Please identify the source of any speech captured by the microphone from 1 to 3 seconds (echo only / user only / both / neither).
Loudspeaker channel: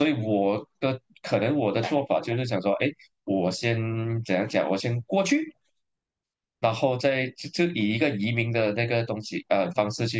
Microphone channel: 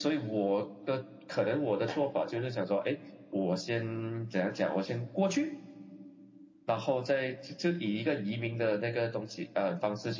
echo only